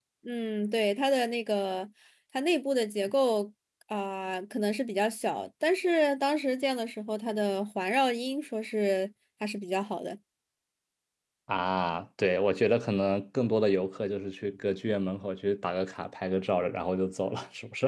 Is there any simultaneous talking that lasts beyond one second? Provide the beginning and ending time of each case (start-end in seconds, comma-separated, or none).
none